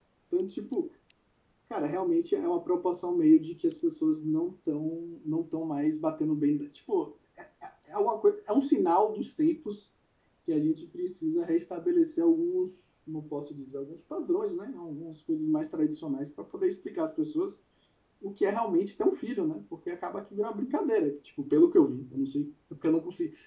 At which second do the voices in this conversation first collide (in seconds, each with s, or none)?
none